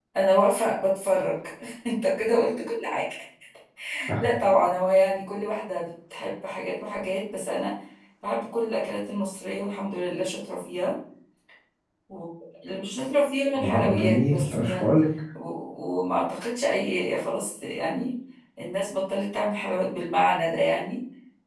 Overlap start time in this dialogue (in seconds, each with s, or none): 13.6 s